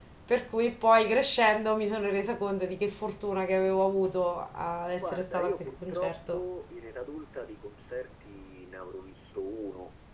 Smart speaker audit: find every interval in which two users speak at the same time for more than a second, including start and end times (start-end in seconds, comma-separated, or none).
5.0-6.5